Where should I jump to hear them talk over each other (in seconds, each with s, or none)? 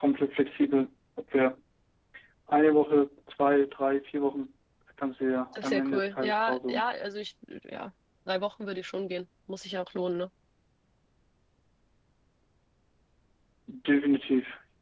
5.5 s